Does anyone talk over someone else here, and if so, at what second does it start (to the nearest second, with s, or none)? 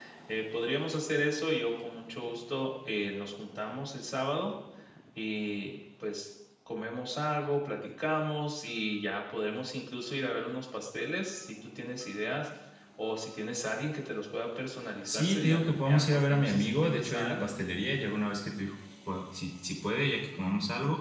15 s